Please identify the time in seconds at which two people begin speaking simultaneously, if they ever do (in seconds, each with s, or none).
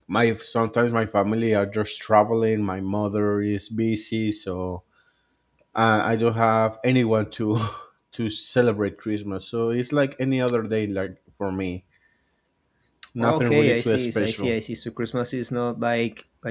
13.2 s